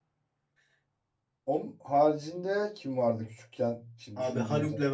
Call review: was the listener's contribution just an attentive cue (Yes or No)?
No